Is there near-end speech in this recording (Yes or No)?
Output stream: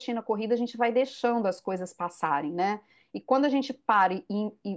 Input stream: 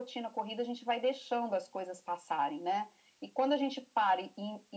No